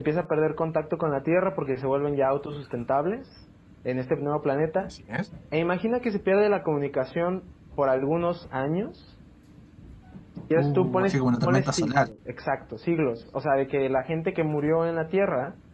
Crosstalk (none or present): present